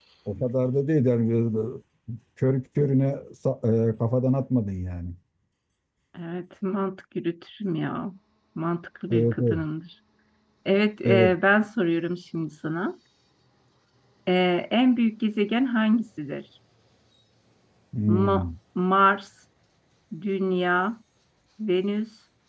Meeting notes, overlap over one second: none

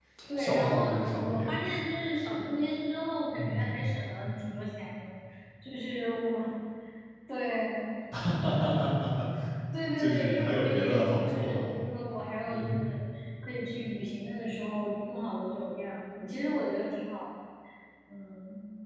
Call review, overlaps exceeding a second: present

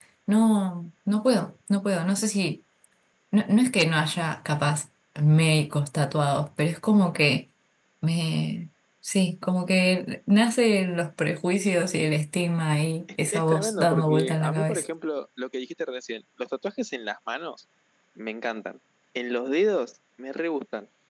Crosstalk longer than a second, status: present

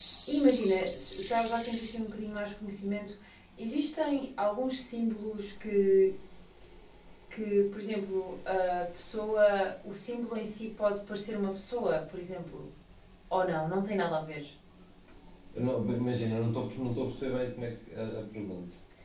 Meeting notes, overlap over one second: none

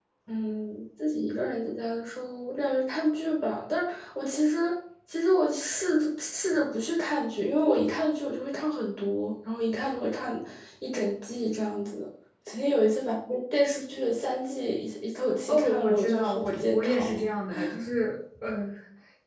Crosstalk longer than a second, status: present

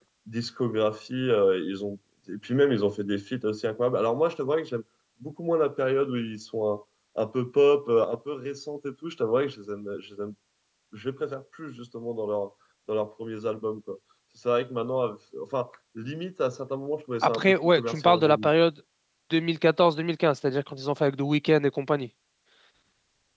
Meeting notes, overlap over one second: present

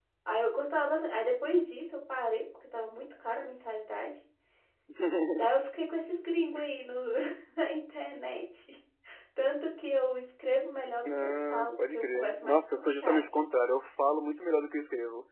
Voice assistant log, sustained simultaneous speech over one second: present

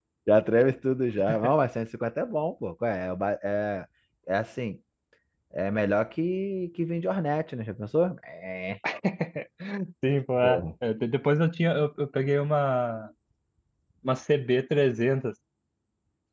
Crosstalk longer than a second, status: none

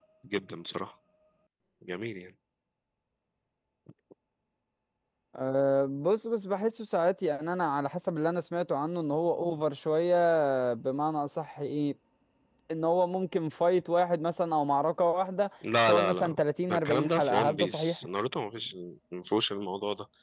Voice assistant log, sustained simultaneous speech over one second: present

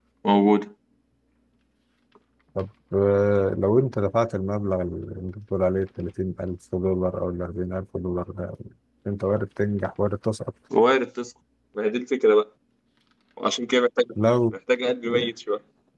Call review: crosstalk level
none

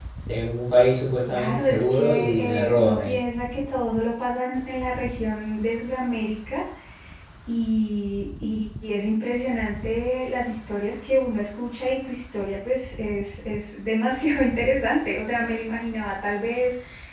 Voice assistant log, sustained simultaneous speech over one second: present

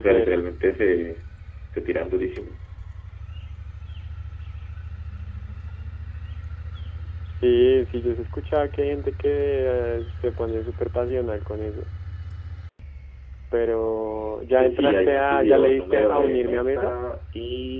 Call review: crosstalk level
present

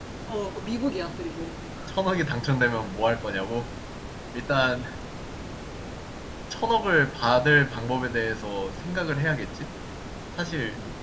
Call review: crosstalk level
none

